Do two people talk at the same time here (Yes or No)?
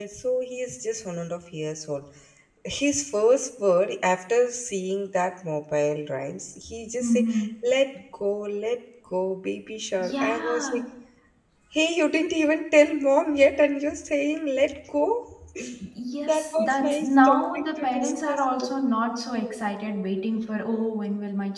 Yes